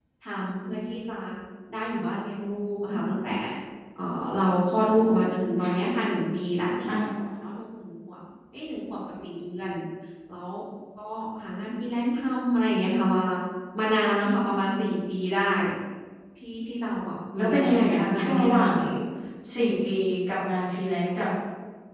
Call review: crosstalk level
present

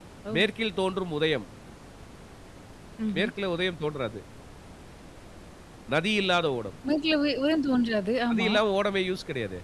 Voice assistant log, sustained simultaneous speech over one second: none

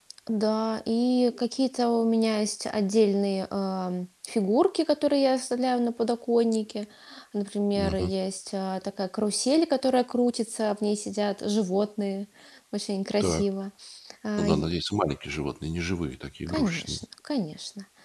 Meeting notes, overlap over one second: none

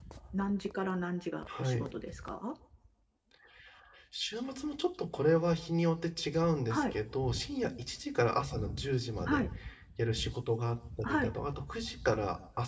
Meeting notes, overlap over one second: none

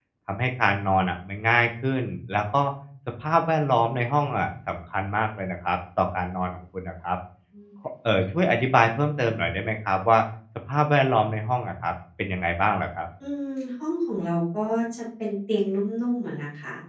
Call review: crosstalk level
none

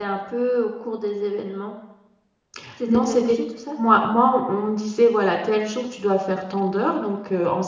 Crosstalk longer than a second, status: none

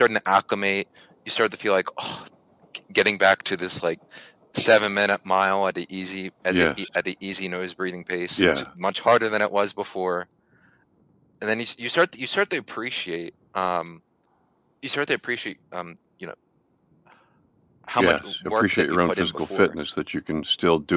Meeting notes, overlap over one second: present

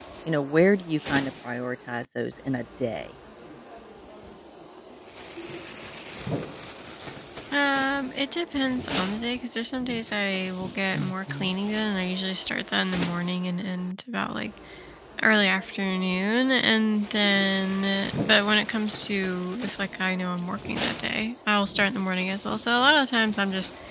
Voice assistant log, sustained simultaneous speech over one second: none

